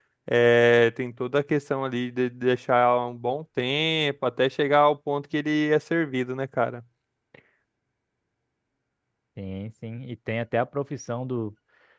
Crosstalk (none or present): none